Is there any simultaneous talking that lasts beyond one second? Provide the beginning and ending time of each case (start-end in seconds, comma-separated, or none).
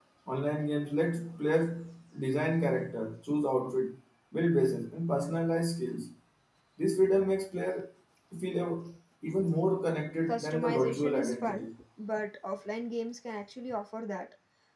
10.3-11.7